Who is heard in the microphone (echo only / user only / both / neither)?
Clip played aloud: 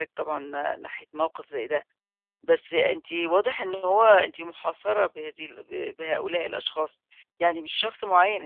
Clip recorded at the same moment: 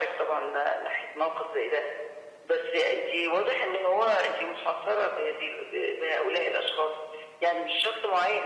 echo only